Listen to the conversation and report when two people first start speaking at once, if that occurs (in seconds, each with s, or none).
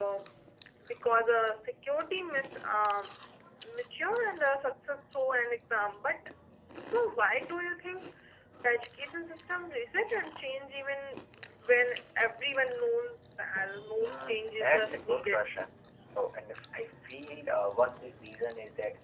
14.0 s